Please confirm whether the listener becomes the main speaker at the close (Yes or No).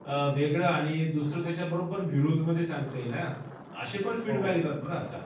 No